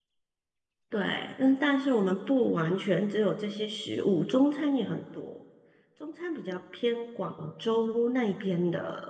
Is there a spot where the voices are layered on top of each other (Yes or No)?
No